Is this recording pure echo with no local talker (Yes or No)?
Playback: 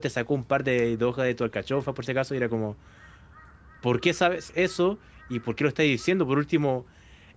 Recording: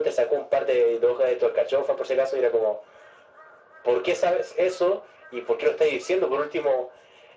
Yes